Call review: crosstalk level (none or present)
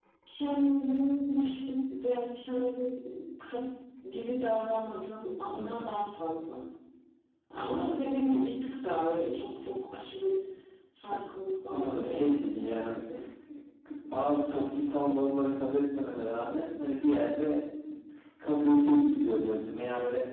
present